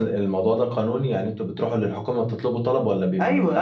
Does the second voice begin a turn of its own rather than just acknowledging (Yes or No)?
Yes